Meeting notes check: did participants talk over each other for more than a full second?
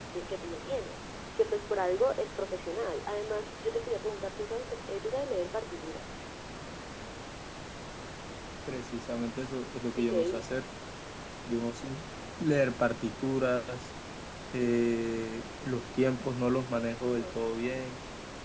No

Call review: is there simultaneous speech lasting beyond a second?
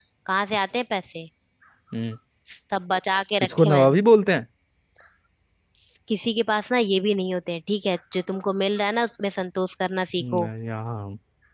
No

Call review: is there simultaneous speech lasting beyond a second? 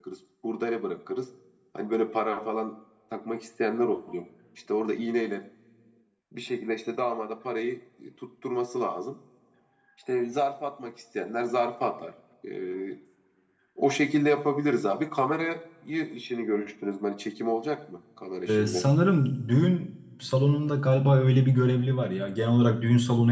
No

